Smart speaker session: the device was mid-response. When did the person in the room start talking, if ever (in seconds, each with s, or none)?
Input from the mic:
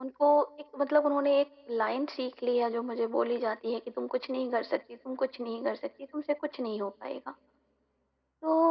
none